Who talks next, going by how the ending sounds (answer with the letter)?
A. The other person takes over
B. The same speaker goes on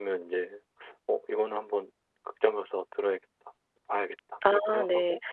A